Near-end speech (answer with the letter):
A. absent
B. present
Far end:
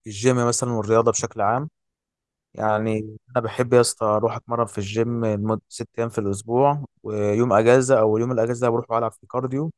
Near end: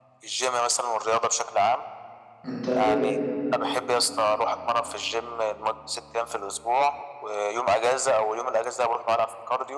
B